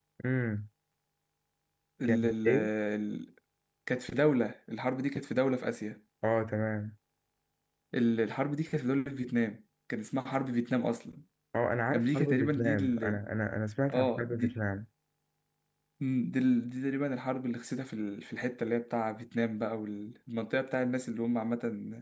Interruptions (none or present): present